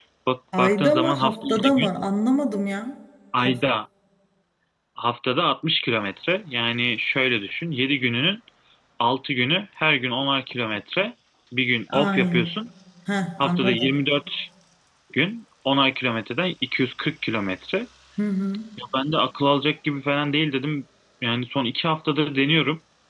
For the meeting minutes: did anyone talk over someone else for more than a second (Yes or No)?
Yes